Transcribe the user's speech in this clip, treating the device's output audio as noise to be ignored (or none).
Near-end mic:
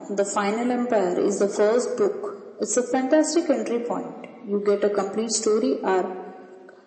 none